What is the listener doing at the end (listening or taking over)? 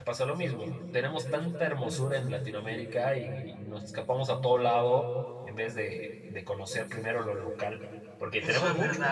taking over